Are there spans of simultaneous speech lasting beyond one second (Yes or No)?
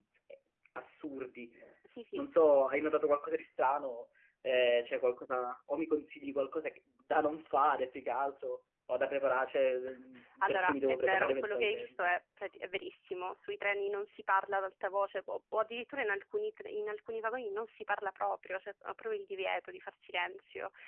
Yes